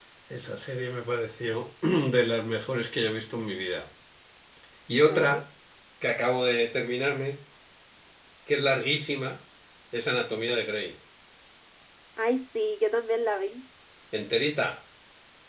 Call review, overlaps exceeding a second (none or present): none